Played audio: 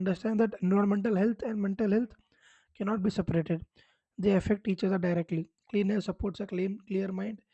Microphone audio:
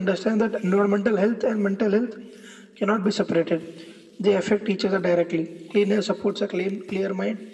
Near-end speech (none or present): none